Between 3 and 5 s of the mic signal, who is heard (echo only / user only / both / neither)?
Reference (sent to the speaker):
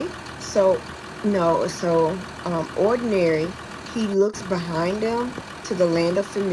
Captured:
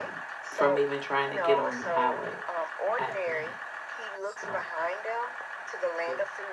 both